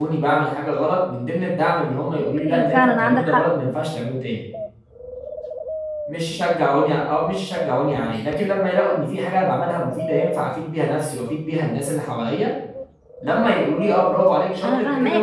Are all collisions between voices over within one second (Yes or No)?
No